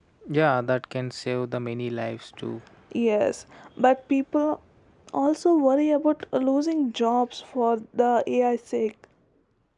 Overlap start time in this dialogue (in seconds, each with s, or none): none